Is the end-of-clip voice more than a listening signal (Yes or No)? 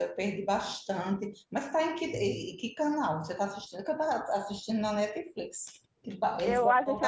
Yes